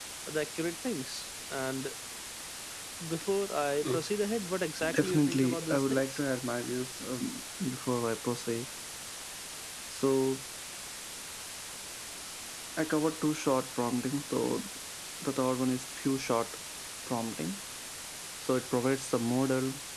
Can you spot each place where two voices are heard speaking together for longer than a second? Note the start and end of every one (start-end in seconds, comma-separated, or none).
4.9-6.2